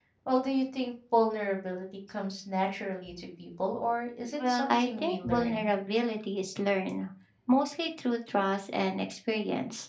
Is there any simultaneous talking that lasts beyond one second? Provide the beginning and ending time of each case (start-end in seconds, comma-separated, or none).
4.4-5.7